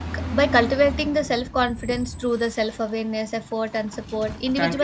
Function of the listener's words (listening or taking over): listening